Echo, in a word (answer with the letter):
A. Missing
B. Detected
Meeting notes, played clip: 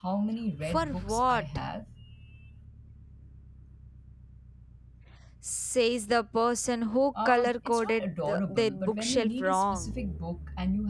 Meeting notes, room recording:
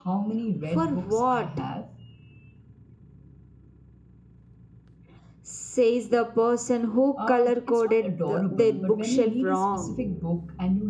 B